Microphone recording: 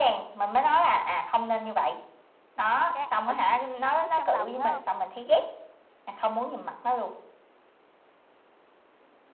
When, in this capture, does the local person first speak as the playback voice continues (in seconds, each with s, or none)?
2.9 s